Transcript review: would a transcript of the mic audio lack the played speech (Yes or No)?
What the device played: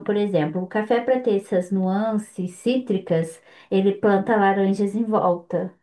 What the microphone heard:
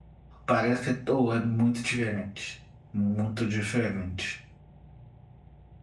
Yes